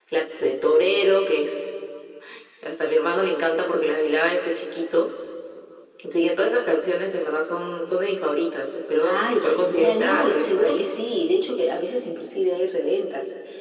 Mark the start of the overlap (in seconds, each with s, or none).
9.0 s